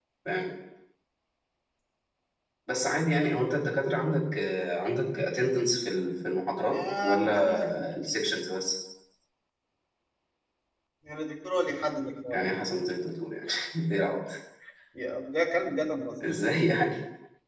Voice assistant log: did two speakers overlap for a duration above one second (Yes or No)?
Yes